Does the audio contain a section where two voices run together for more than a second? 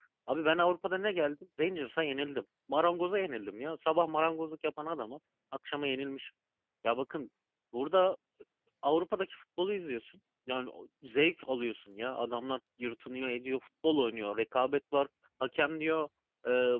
No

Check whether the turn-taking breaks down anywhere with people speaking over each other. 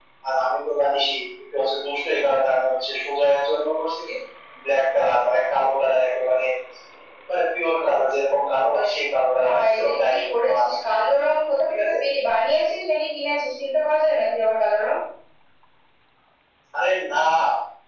Yes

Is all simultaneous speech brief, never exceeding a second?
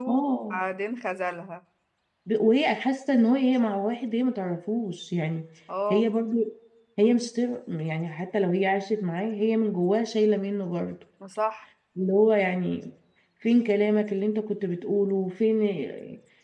Yes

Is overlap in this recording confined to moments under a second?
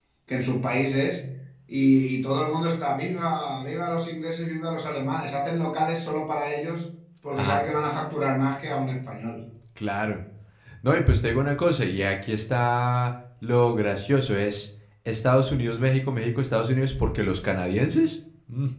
Yes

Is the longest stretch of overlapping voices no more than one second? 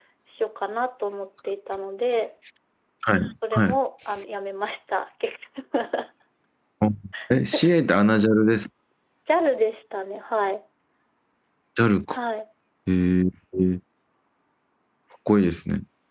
Yes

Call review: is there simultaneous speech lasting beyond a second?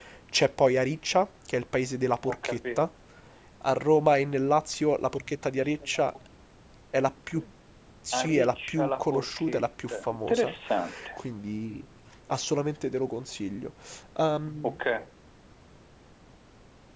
Yes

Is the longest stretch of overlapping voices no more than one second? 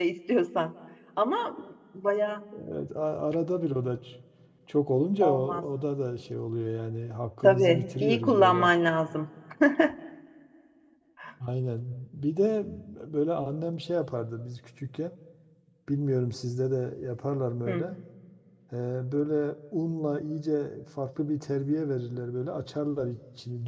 No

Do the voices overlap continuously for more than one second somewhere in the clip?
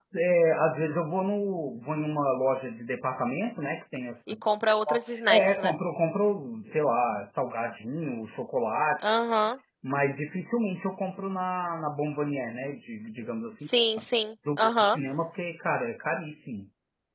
No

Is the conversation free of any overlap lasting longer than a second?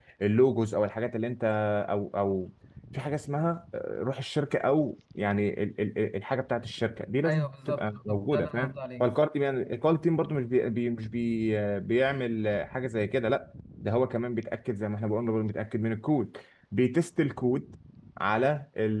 No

